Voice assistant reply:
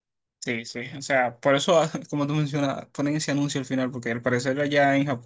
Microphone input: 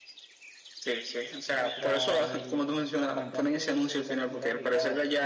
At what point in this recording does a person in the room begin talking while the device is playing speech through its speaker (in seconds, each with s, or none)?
1.5 s